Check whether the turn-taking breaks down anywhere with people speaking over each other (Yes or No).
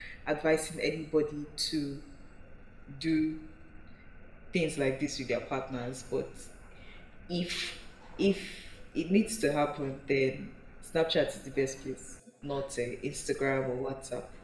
No